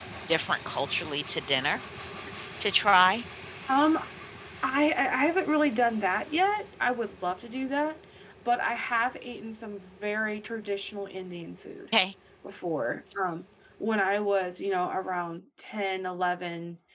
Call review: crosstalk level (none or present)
none